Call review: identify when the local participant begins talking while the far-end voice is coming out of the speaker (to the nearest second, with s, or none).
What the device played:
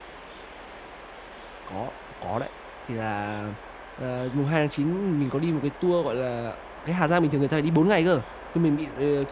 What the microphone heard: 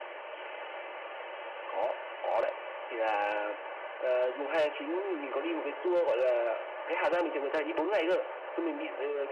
none